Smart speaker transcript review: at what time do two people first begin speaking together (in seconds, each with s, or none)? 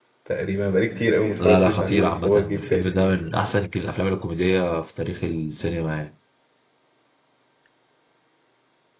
1.4 s